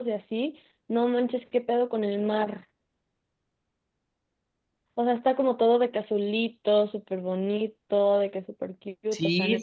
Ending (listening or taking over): taking over